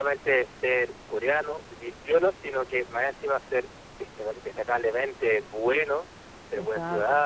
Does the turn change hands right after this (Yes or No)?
No